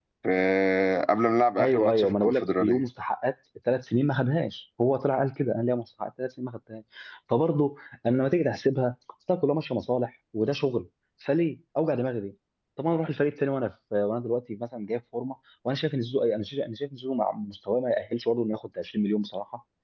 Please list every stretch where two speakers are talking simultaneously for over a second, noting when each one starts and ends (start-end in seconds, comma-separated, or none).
1.6-2.8